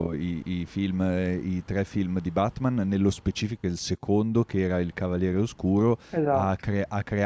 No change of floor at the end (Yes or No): Yes